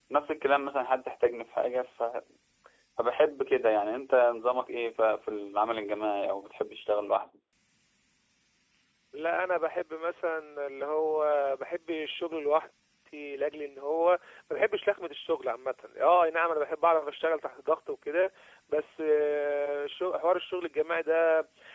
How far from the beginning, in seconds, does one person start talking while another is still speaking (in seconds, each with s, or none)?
none